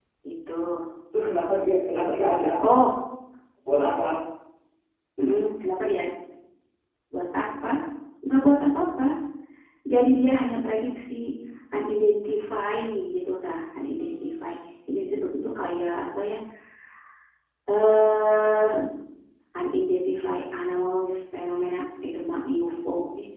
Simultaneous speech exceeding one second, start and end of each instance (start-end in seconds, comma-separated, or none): none